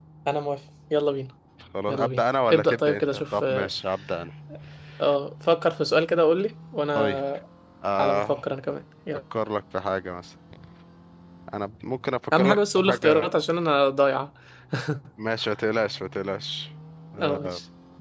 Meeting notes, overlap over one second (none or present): present